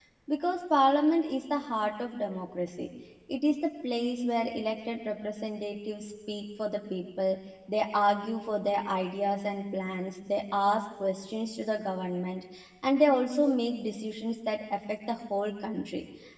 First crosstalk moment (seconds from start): none

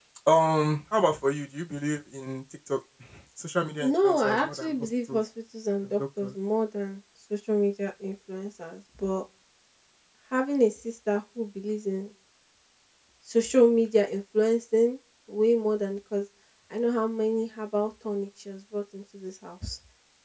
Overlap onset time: 3.8 s

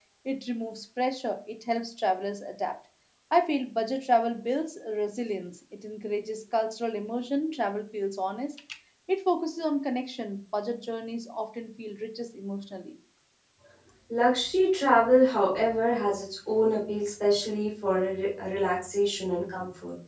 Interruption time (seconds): none

